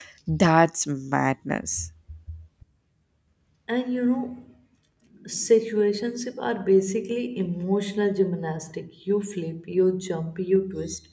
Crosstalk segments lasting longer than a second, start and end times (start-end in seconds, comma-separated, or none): none